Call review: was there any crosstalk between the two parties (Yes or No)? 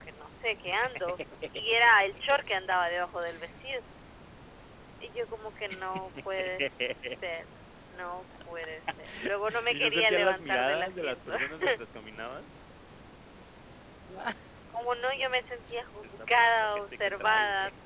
Yes